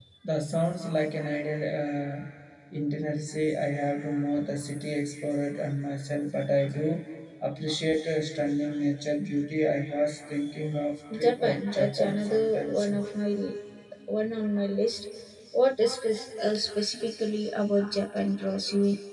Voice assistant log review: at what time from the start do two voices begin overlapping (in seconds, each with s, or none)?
11.1 s